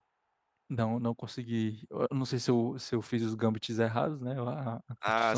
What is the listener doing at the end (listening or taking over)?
listening